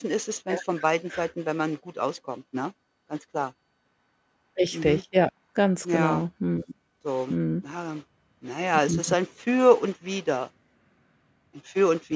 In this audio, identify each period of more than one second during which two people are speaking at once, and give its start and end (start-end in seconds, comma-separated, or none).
none